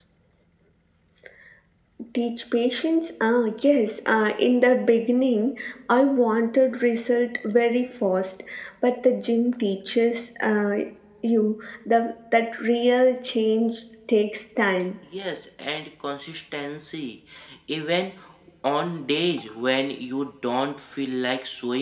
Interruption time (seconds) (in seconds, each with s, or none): none